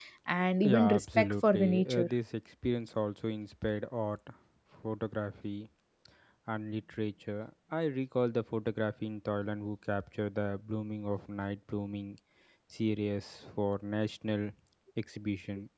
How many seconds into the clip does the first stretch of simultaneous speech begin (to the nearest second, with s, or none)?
1 s